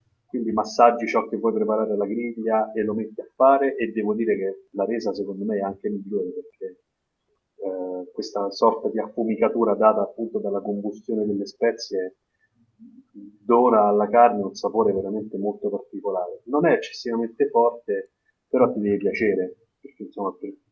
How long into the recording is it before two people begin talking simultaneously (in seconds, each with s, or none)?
none